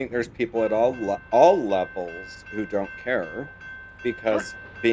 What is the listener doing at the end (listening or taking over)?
listening